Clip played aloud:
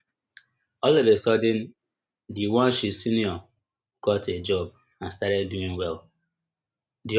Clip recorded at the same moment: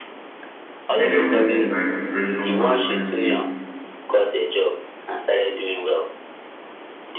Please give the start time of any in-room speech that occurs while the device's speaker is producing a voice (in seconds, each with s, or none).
0.9 s